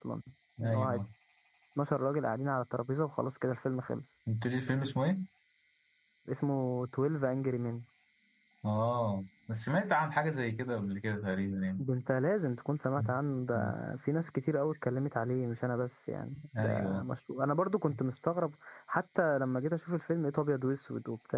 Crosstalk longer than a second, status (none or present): none